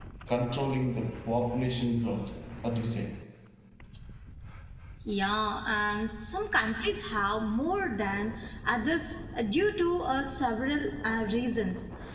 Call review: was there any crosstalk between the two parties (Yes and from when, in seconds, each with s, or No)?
No